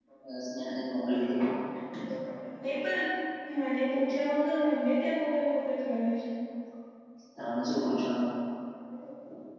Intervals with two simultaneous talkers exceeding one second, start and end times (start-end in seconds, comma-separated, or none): none